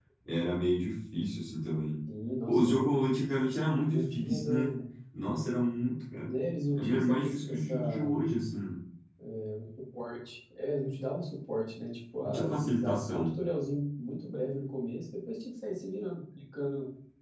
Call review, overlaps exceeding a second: present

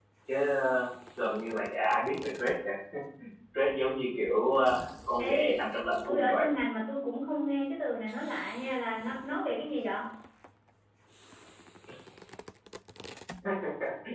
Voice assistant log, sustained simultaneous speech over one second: none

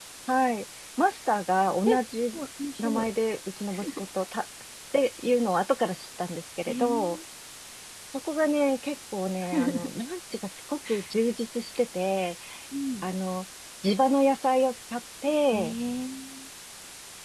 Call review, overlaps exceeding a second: none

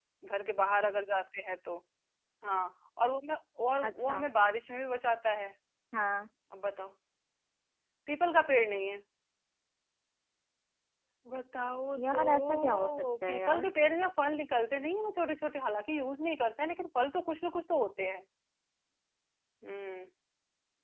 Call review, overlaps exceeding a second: present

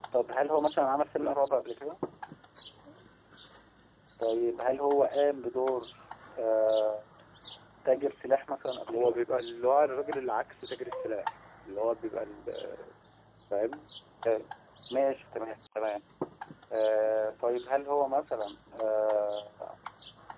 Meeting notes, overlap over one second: none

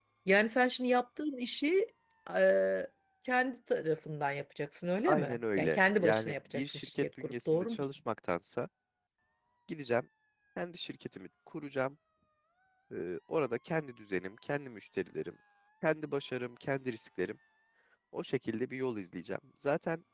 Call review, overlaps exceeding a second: present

